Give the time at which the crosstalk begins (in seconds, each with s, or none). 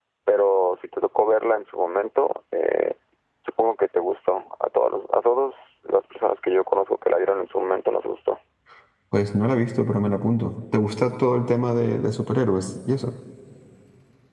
none